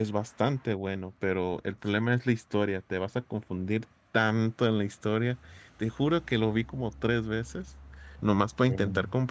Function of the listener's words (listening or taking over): listening